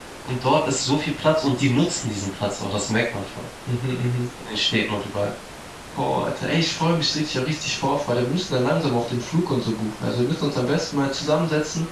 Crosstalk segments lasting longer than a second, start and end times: none

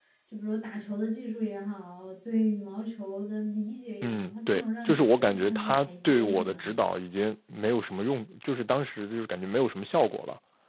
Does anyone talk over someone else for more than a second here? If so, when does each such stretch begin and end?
4.0-6.7

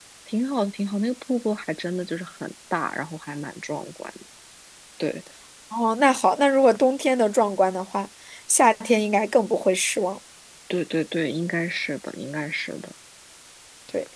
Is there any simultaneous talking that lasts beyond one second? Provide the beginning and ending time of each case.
none

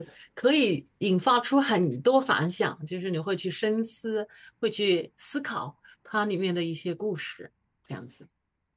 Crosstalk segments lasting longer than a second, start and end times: none

